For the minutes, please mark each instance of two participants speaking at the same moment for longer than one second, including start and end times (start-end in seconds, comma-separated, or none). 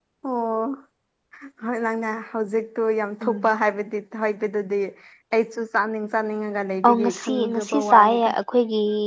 6.8-8.3